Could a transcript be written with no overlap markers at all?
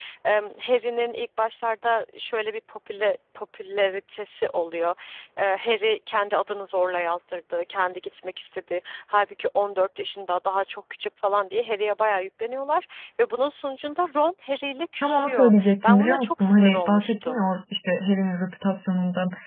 No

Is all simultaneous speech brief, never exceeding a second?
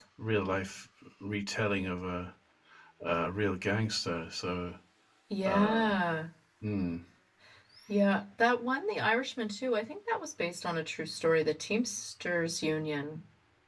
Yes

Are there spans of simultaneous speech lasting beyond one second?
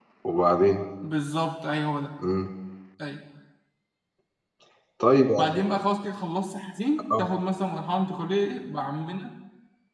No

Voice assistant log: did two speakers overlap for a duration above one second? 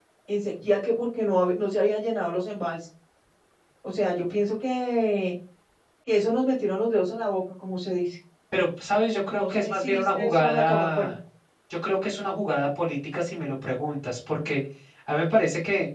Yes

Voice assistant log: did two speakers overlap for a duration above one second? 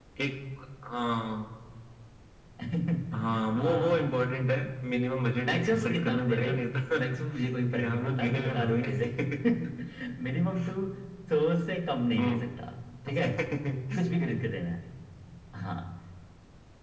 Yes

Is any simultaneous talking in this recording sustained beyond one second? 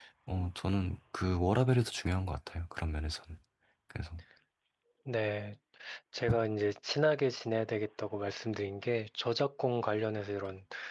No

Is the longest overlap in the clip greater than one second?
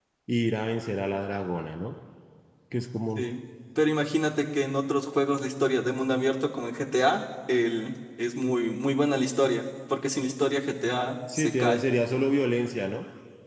No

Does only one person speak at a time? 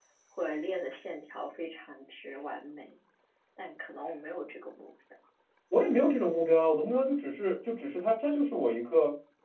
Yes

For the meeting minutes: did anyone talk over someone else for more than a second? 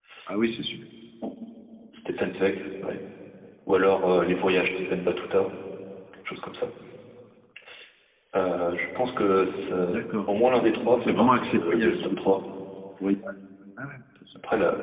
Yes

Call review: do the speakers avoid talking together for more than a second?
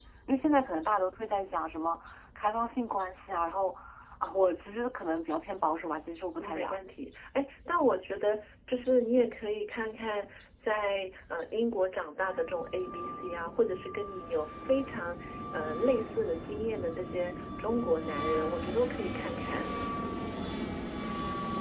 Yes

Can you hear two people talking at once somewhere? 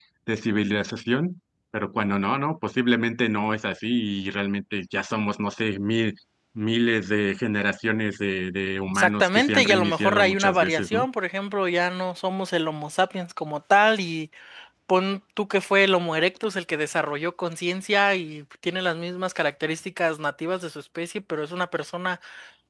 Yes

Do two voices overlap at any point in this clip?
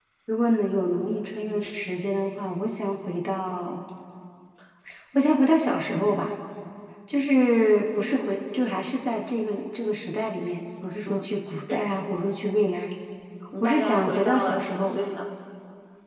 Yes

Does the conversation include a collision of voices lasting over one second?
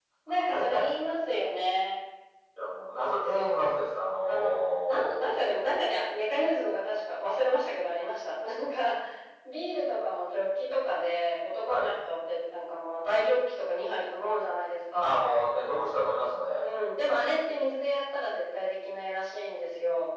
Yes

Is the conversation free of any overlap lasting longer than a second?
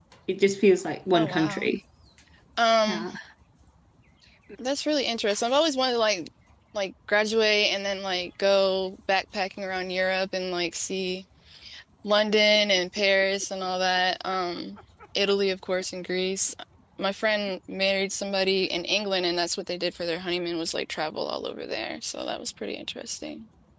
Yes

